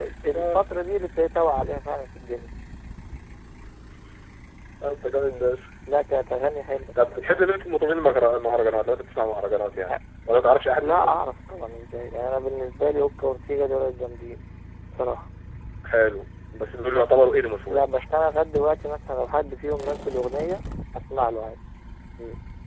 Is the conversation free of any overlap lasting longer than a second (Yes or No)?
Yes